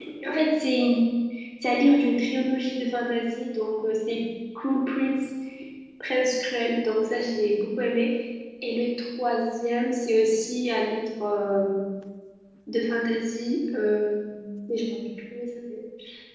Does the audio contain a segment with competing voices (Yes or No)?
No